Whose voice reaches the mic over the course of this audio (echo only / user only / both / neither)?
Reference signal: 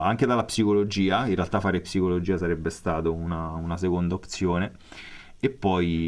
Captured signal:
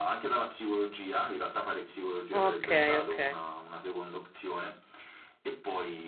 both